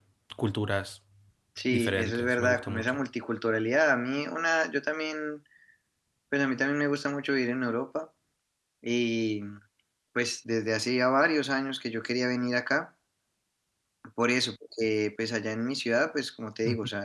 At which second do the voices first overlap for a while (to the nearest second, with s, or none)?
2 s